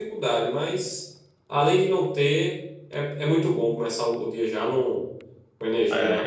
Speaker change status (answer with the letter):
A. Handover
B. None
A